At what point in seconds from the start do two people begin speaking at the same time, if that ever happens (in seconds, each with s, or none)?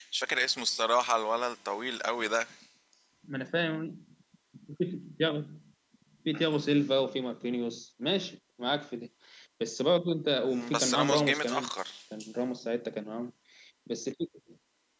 10.5 s